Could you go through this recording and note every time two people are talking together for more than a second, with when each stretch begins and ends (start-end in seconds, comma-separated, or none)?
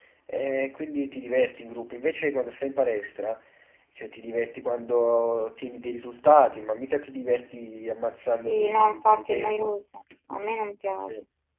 8.3-9.7